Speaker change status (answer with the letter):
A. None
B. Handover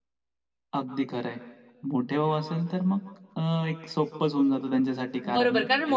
B